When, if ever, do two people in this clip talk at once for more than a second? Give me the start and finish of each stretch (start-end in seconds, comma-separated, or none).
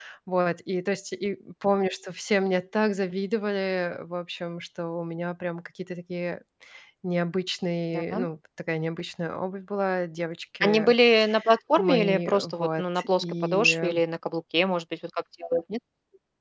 11.8-13.9